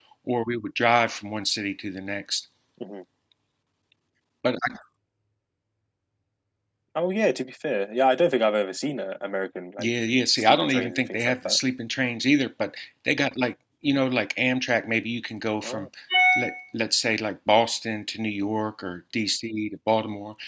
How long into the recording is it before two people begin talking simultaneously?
10 s

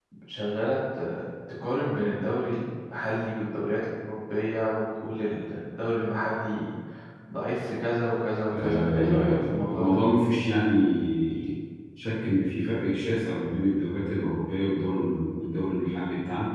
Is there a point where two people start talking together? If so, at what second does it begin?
9 s

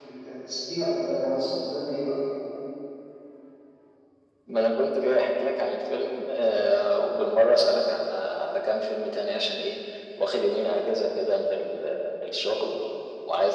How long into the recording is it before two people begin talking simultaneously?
none

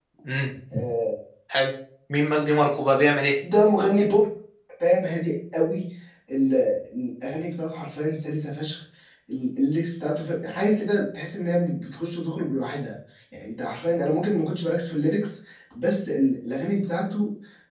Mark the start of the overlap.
none

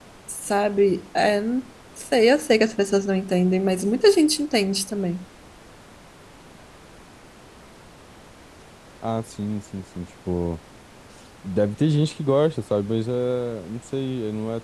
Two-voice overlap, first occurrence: none

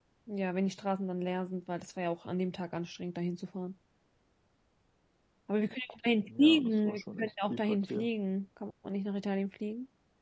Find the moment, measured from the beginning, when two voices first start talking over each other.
6 s

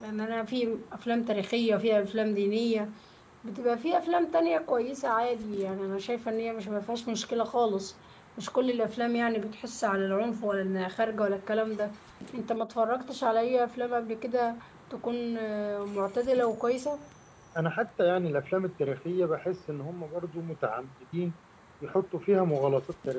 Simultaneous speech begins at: none

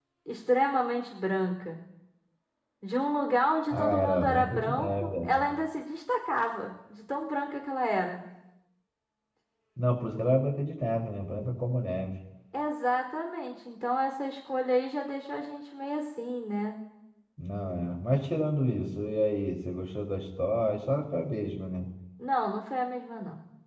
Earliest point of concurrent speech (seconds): 4 s

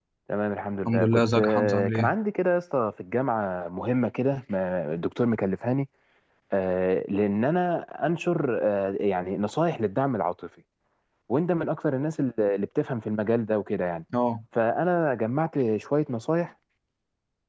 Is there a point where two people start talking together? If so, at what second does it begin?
1 s

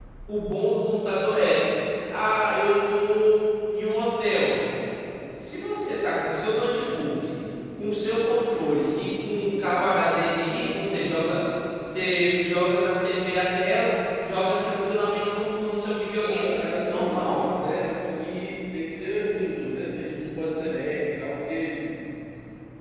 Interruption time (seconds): 16 s

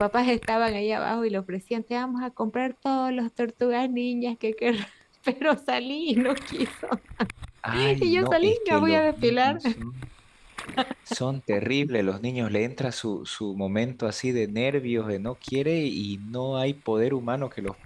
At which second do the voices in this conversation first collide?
8 s

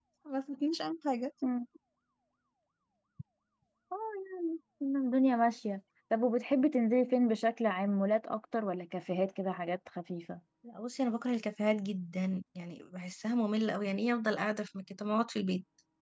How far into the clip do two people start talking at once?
none

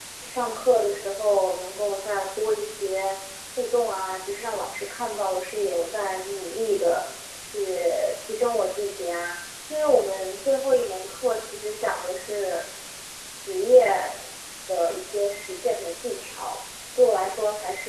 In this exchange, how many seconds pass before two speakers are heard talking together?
none

